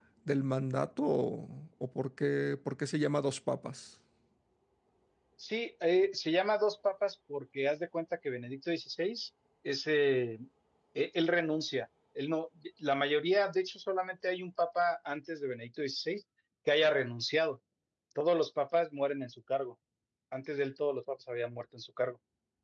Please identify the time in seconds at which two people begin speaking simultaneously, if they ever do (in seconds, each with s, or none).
none